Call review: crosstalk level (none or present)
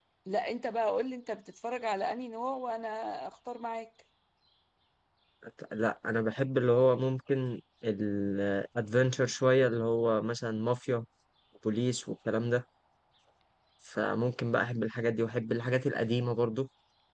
none